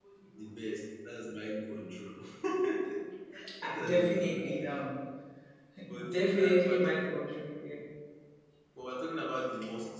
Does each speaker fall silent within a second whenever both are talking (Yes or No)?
No